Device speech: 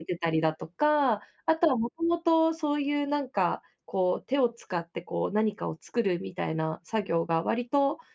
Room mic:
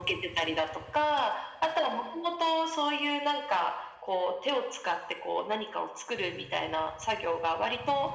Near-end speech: none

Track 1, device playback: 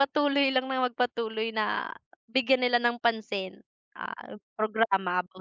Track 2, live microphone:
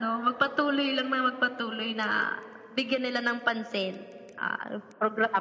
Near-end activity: none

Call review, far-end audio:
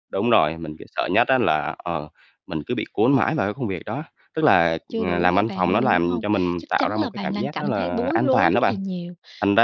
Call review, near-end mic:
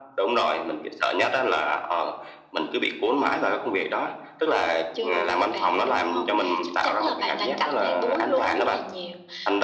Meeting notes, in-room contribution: none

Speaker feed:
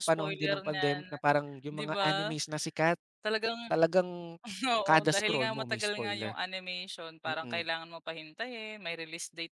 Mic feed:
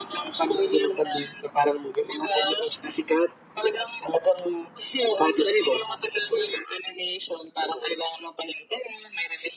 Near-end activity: none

